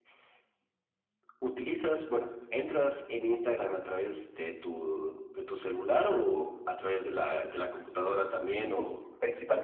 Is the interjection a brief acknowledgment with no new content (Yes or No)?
No